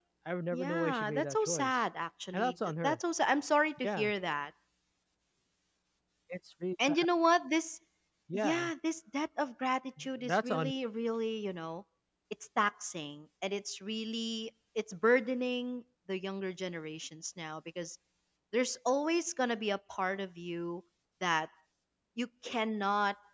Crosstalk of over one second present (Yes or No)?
Yes